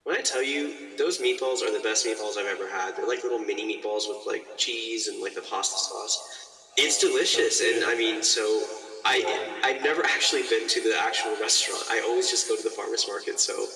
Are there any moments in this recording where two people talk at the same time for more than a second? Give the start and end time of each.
6.8-8.1

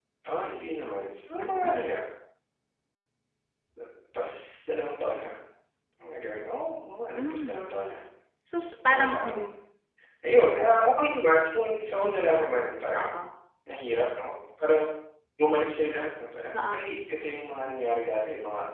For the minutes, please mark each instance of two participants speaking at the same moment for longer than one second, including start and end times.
none

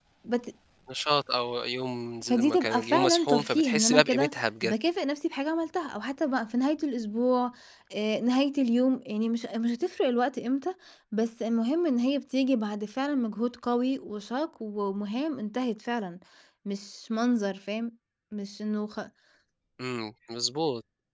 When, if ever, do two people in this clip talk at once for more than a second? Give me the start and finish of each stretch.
2.2-4.7

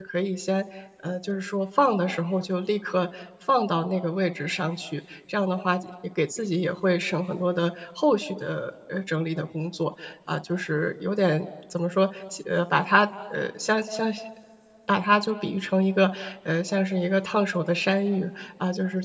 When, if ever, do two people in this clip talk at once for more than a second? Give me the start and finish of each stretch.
none

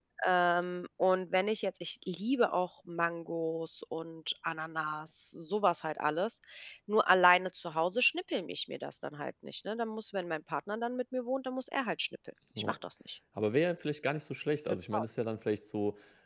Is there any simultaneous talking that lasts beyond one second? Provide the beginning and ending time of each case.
none

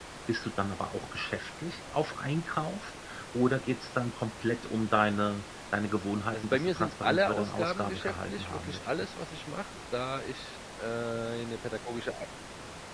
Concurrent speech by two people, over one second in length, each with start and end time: 6.3-9.1

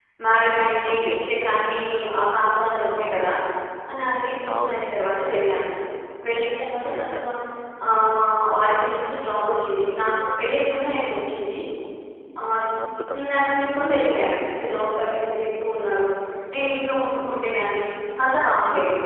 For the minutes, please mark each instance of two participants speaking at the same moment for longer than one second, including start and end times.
none

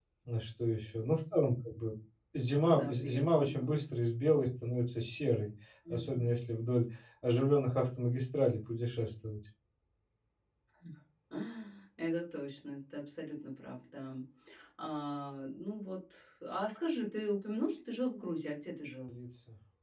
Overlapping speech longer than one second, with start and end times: 2.6-3.8

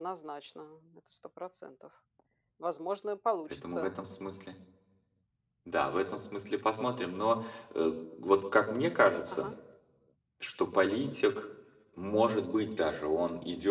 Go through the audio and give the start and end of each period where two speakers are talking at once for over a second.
none

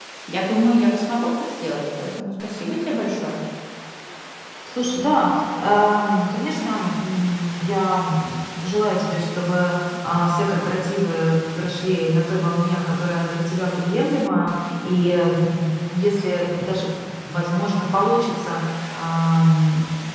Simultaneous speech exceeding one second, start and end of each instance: none

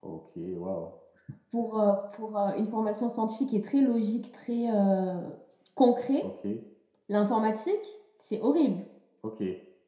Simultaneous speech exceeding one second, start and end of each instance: none

